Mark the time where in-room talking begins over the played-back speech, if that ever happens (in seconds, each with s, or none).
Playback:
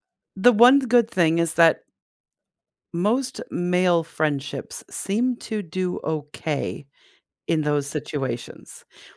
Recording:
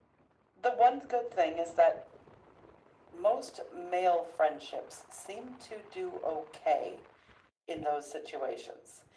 none